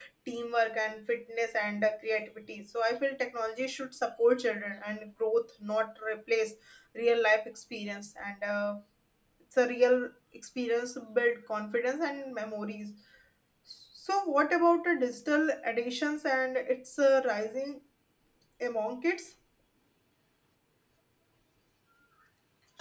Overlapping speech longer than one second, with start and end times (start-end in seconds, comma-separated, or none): none